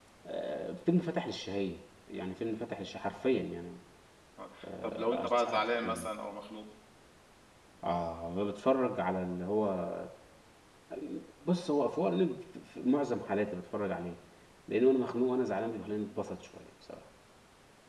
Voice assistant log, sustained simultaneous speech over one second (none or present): present